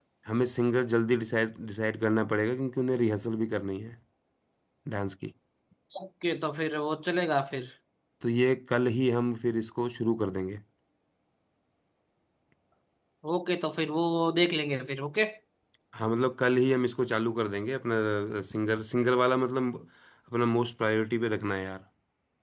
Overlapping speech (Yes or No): No